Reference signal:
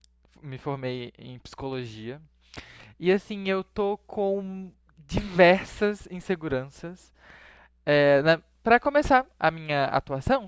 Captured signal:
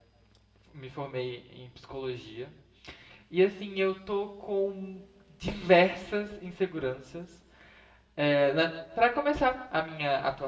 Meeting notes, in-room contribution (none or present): none